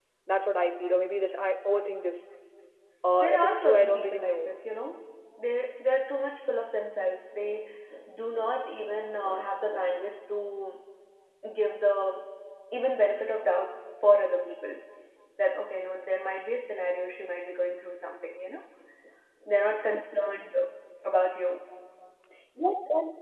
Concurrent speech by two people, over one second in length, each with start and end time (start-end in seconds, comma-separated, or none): 3.2-4.5